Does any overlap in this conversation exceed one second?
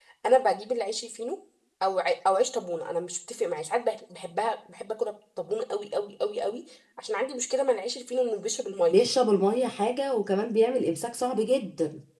No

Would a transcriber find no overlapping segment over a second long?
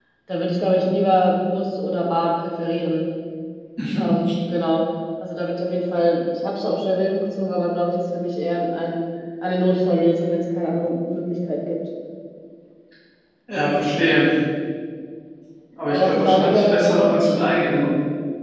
No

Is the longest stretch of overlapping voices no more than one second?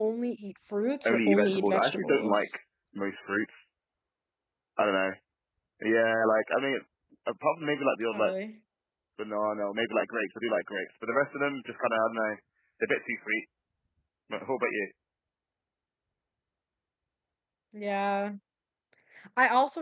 No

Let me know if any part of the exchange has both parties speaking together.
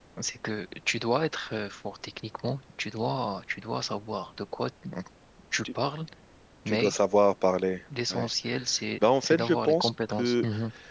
Yes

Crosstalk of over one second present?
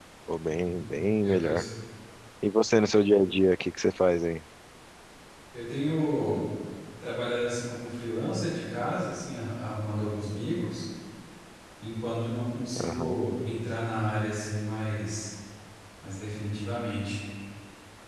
No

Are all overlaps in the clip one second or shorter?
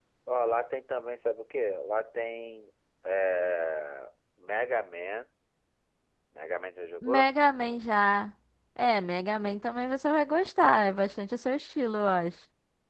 Yes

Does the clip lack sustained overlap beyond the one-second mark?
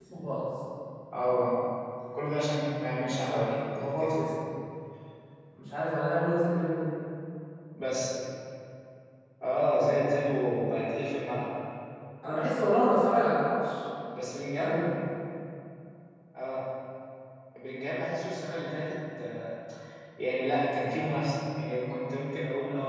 No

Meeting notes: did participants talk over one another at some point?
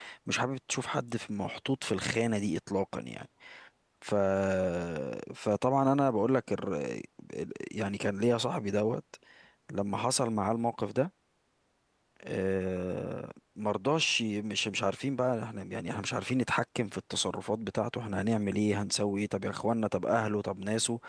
No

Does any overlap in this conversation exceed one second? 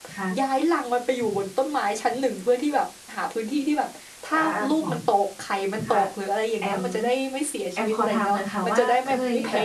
Yes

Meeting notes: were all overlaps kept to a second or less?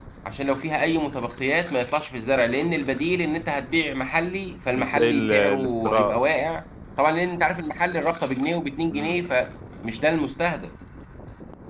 No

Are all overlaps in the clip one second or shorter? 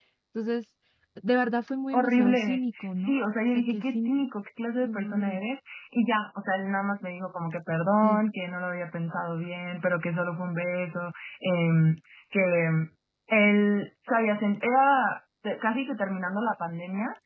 No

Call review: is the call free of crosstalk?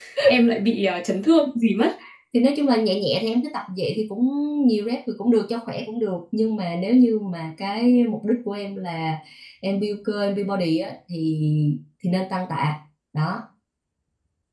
Yes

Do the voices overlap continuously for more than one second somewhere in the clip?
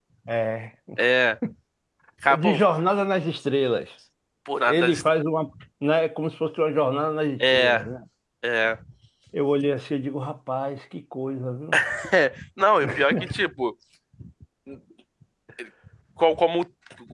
No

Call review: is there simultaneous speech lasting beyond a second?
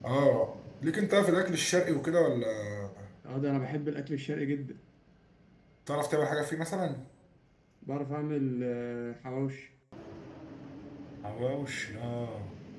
No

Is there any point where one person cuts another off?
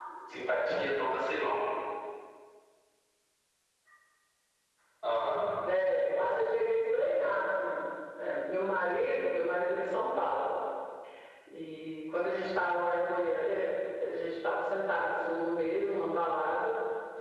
No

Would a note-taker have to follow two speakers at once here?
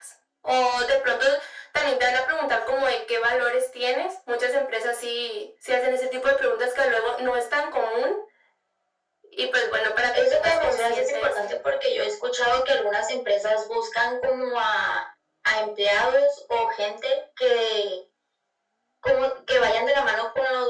Yes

